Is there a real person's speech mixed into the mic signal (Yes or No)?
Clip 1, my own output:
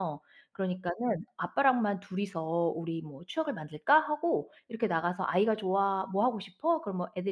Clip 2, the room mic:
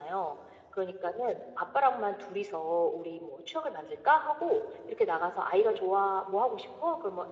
No